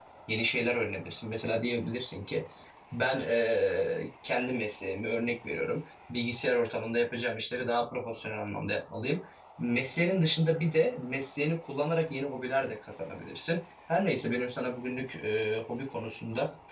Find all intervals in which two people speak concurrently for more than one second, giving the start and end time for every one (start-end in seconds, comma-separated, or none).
none